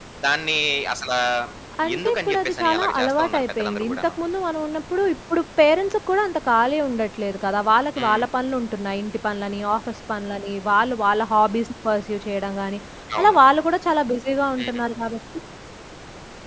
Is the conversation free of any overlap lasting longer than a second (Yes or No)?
No